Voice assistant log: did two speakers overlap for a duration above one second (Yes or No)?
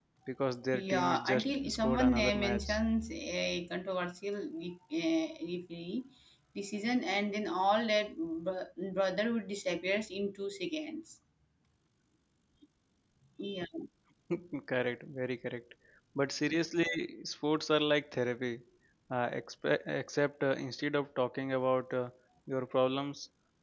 Yes